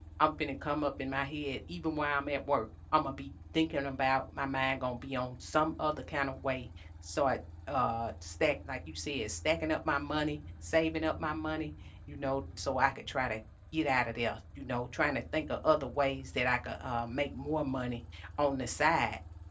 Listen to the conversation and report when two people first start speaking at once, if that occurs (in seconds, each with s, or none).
none